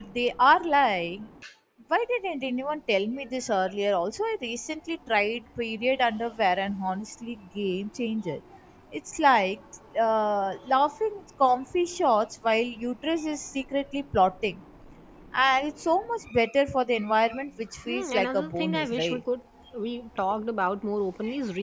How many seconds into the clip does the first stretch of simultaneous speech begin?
17.9 s

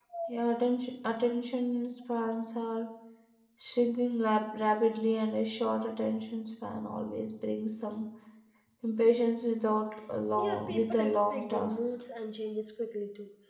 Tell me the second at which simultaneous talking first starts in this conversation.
10.4 s

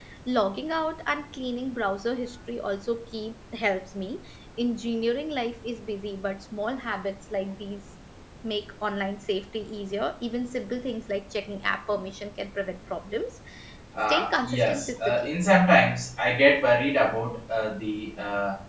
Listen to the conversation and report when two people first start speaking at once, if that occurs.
14.1 s

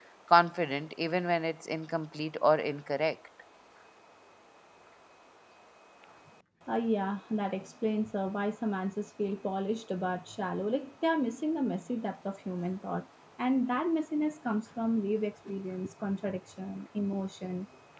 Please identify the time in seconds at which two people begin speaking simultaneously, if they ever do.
none

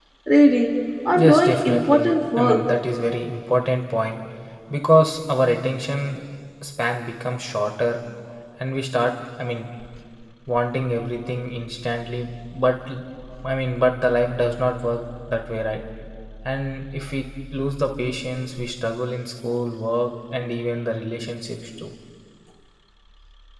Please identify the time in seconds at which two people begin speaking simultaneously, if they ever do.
1.1 s

